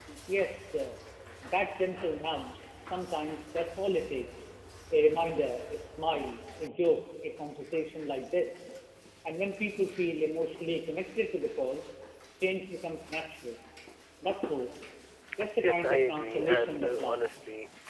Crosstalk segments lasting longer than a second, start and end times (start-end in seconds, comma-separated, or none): 15.6-17.3